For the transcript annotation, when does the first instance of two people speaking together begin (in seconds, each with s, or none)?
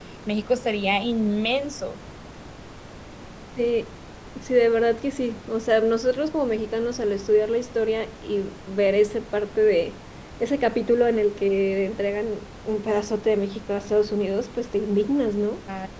none